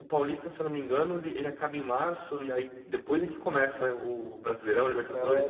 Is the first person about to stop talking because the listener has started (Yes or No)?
Yes